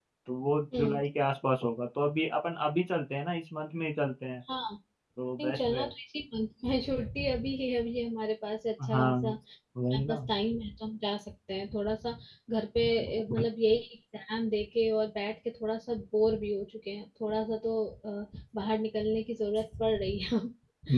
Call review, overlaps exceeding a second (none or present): none